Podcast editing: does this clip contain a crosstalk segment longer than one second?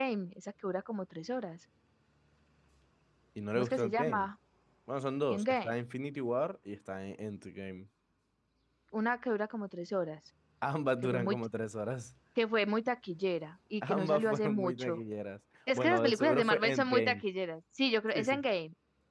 Yes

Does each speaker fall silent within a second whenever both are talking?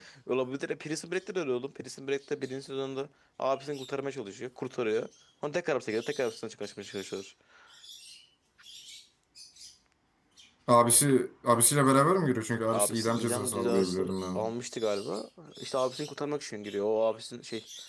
No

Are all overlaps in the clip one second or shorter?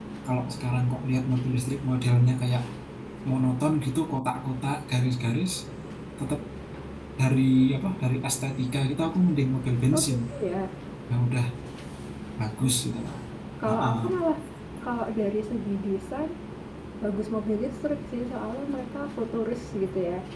Yes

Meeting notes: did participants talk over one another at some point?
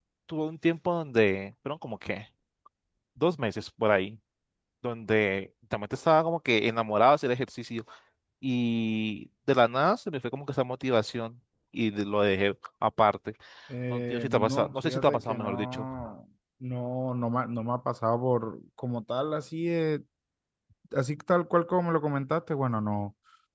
Yes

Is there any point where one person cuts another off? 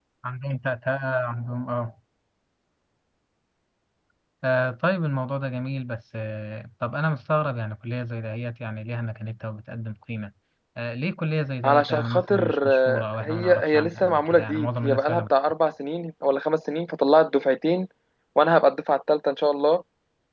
Yes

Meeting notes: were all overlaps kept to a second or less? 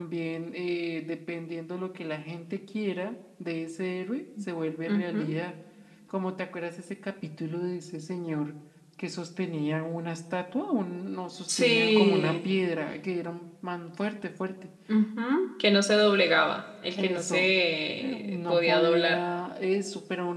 No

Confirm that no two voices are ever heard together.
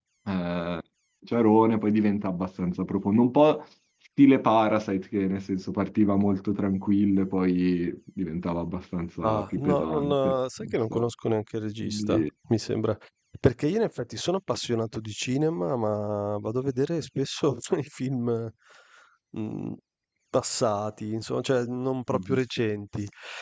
No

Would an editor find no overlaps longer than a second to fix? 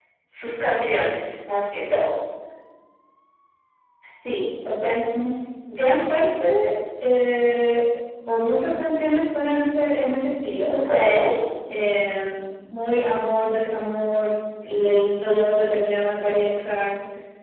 Yes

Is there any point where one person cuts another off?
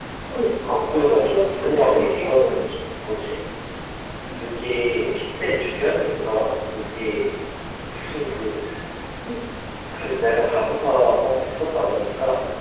Yes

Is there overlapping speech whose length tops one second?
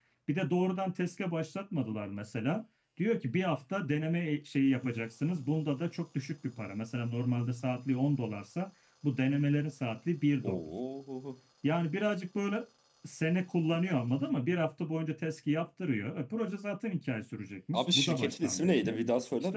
Yes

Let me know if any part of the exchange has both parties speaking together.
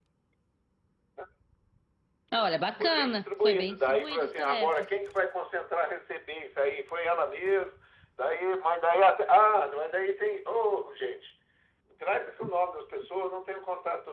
Yes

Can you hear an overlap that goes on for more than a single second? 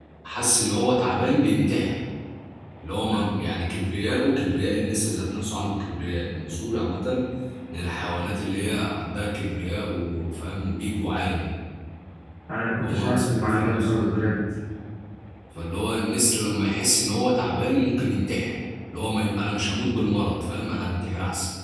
Yes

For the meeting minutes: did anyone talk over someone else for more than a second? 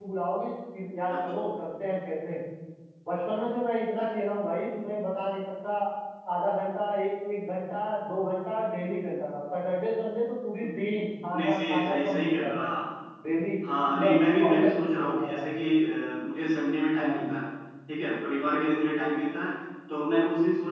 Yes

